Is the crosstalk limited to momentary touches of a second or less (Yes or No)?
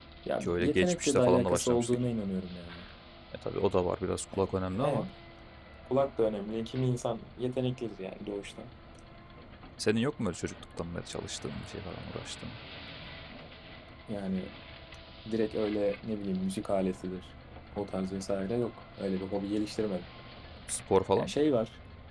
No